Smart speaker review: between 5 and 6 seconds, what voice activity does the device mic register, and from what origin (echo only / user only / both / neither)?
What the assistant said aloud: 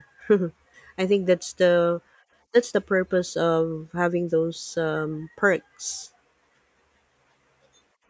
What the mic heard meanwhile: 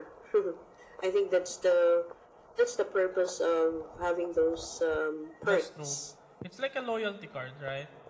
both